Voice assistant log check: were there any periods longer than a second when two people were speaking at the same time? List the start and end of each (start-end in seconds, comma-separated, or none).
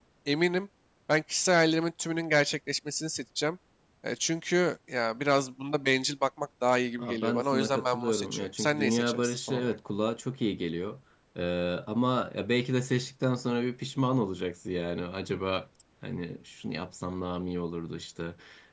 7.0-9.7